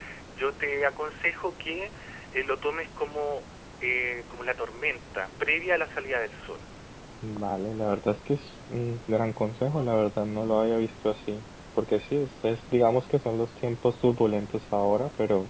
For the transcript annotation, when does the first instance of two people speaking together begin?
none

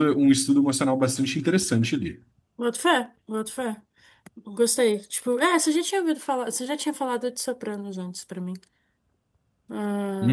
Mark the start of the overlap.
none

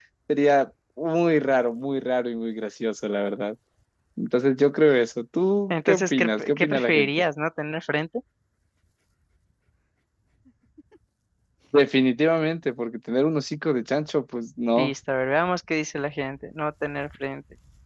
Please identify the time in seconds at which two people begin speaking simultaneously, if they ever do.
5.7 s

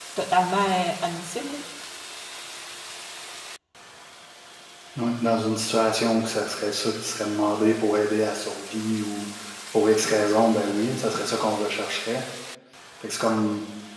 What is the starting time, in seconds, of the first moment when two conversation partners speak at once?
none

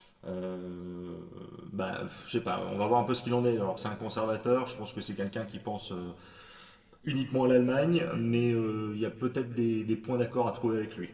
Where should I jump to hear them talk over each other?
none

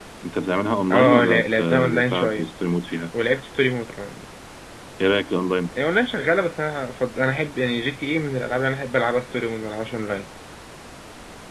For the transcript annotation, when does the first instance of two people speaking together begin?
0.9 s

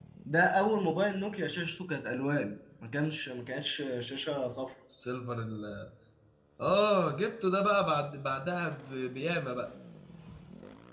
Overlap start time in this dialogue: none

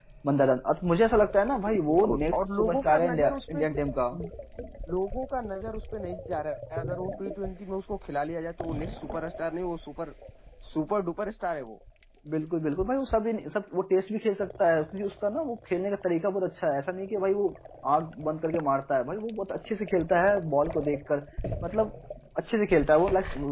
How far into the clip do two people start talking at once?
1.7 s

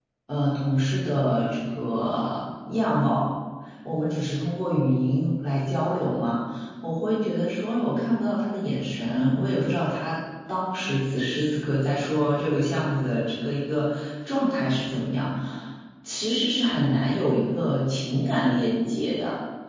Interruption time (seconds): none

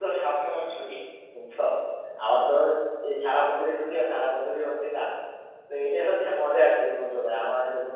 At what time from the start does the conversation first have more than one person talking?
none

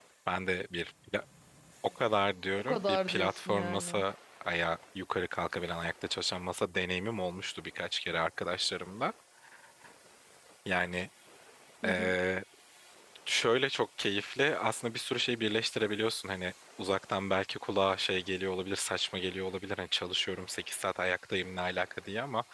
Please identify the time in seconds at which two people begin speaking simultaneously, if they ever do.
2.6 s

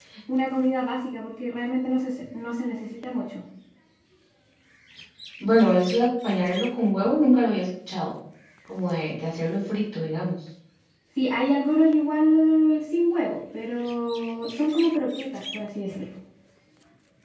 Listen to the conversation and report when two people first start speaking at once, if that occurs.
none

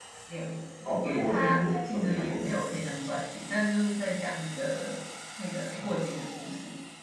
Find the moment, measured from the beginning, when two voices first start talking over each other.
1.0 s

